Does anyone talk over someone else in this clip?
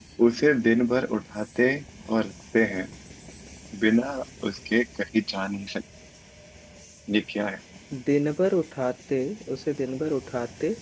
No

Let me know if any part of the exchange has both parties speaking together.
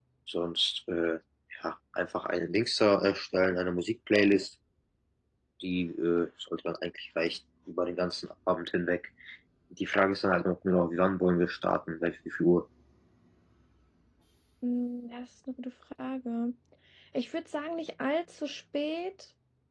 No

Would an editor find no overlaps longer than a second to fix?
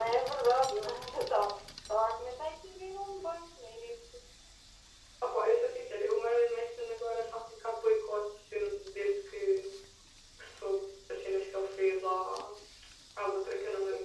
Yes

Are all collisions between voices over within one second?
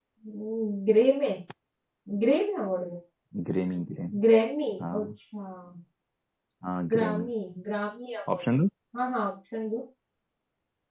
Yes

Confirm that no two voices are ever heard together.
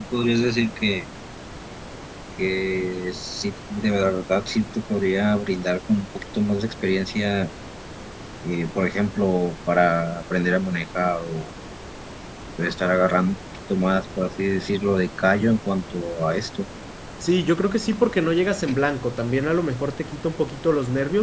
Yes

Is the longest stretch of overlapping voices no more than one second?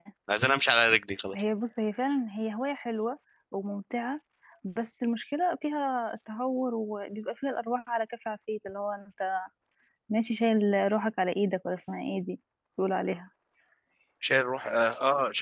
Yes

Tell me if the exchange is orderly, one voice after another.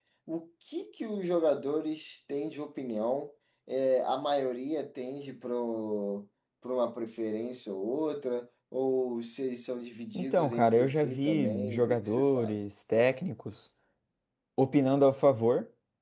No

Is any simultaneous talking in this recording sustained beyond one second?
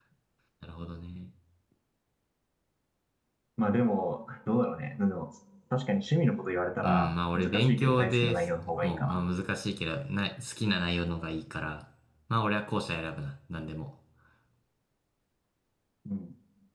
Yes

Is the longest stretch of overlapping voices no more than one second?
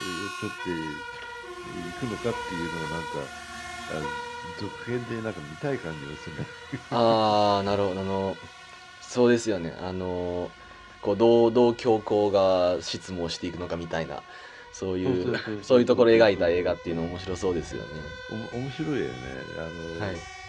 No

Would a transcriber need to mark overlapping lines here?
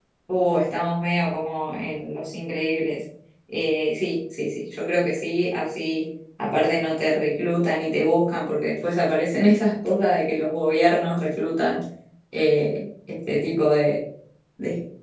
No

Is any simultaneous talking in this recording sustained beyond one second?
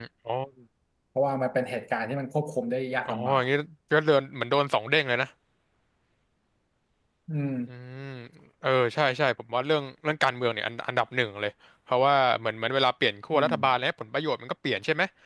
No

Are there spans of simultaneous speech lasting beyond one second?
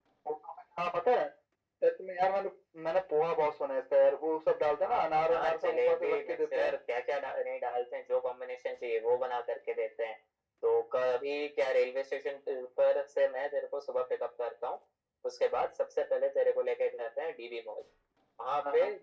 Yes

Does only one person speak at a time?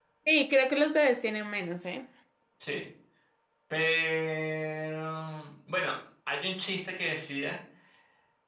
Yes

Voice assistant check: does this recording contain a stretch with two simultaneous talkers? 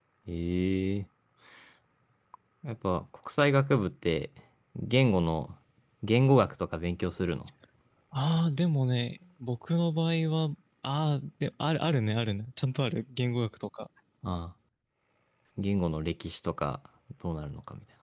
No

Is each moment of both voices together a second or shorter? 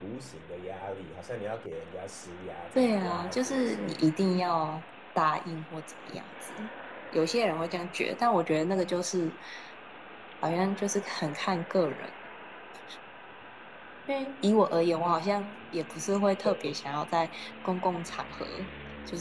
No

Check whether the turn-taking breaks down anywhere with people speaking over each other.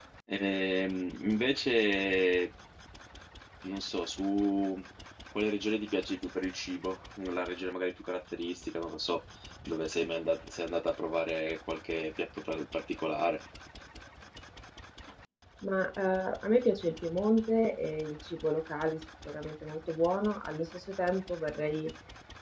No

